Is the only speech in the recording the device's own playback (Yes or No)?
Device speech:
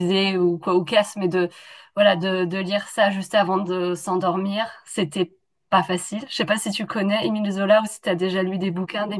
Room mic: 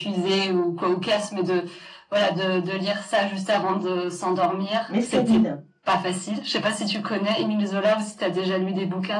No